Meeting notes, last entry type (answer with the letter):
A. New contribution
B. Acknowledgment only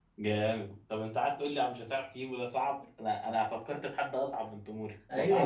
A